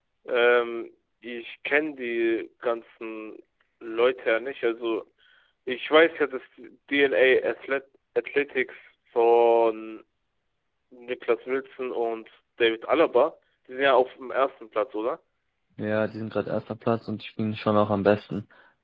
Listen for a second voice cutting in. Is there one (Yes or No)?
No